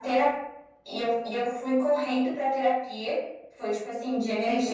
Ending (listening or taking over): taking over